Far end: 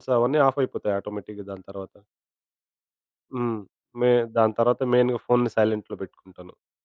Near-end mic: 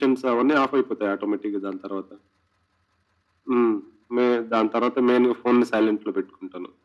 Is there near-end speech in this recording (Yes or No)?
No